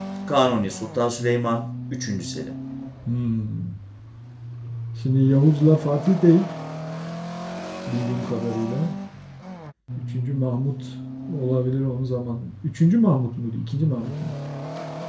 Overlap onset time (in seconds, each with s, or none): none